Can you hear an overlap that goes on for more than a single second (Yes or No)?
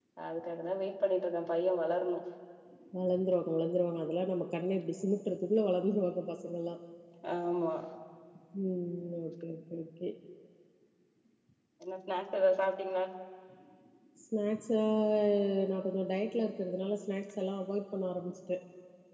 No